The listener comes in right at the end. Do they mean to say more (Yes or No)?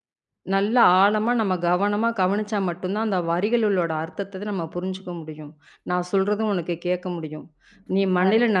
No